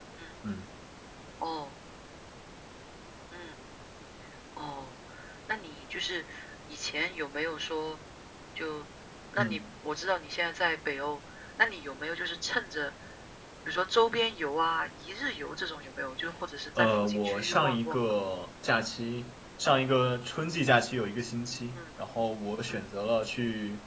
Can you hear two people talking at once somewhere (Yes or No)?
Yes